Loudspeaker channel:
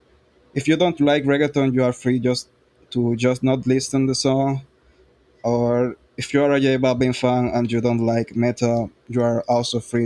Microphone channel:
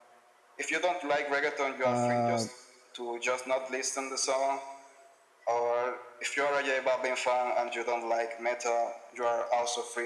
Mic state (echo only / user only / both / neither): both